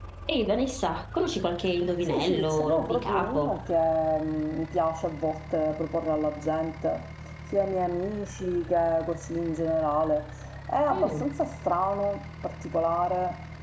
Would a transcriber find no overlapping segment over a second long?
No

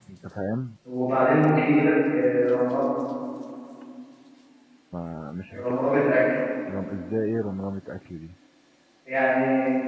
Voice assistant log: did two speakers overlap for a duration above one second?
No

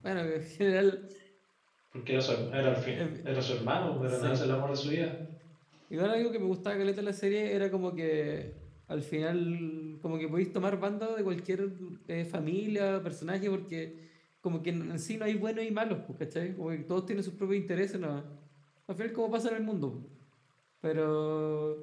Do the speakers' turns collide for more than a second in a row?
No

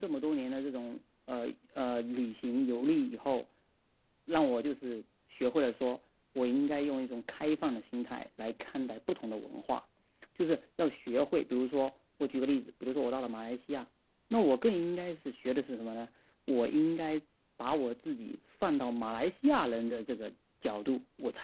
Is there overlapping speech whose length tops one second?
No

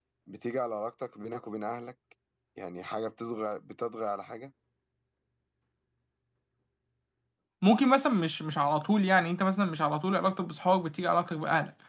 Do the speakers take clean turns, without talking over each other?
Yes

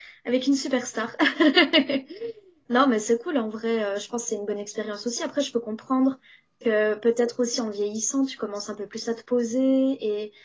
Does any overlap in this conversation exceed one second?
No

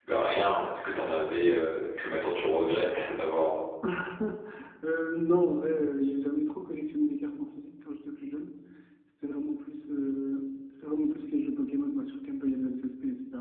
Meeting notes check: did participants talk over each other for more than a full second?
No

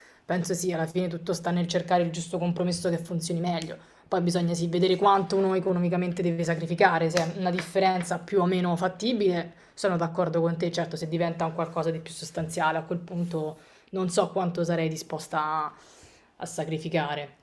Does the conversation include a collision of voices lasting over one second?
No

